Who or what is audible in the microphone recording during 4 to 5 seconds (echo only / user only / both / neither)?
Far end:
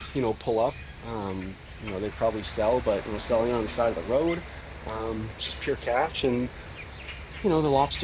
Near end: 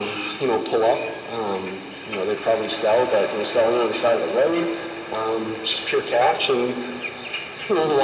echo only